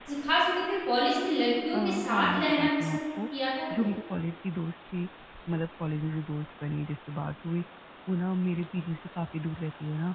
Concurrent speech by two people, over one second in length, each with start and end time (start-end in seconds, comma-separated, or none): 1.7-3.0